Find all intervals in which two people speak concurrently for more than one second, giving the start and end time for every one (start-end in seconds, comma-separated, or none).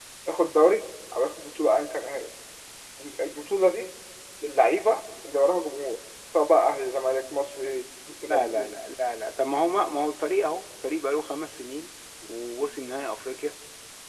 none